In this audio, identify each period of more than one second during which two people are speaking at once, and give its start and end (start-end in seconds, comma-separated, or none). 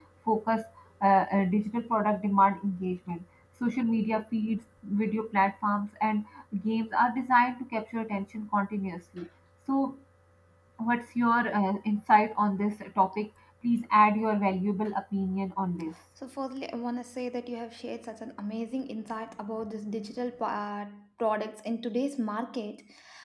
none